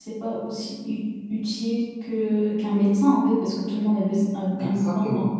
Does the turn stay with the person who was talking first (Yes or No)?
Yes